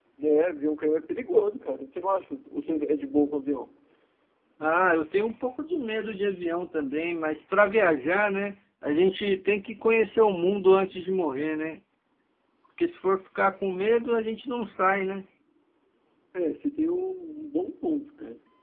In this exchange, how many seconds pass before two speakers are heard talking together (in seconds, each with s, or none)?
none